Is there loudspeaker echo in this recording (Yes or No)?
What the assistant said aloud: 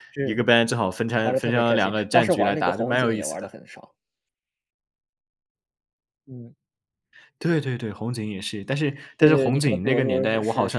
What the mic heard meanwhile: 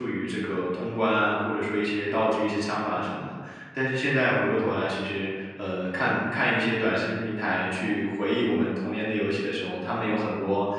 No